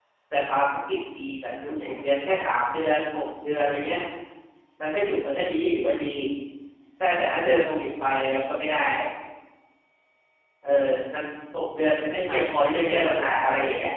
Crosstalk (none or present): present